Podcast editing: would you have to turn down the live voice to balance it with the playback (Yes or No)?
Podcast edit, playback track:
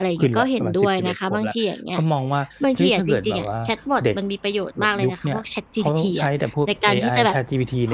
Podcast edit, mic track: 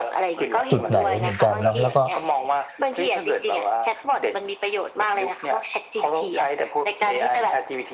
Yes